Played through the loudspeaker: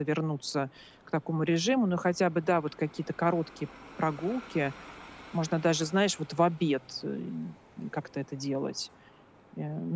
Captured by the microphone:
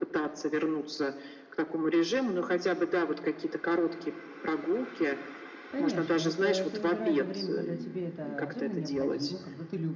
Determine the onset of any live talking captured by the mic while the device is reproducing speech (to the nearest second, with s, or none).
6 s